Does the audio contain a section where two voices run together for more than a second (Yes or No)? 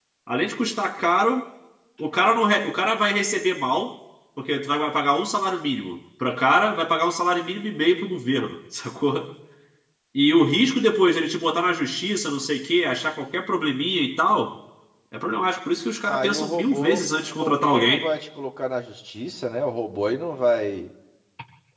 Yes